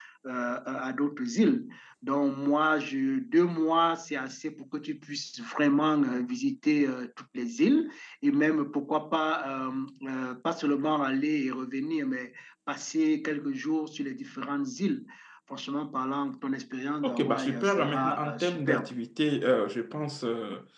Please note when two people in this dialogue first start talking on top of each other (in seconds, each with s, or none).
17.0 s